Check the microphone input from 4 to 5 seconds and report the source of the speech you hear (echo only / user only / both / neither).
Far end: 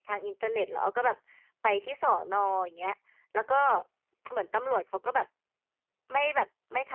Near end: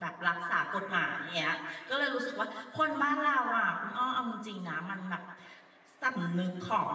user only